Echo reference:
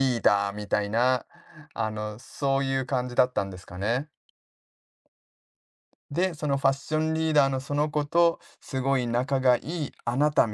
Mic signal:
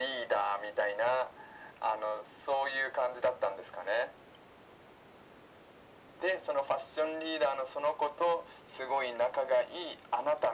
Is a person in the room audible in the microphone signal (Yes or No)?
No